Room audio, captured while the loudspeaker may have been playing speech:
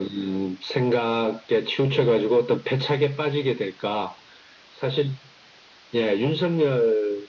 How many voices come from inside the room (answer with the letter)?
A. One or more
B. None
B